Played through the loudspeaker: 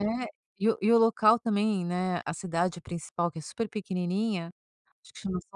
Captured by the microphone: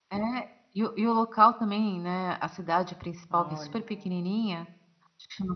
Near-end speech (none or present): present